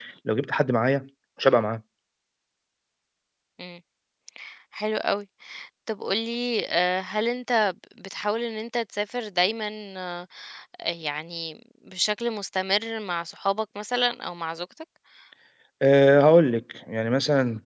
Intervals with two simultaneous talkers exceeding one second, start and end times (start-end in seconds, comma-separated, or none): none